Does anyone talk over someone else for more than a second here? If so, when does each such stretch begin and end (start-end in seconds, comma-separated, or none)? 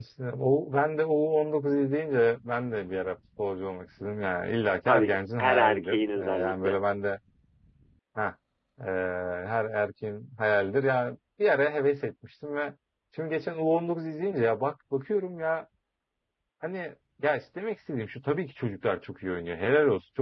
4.9-6.8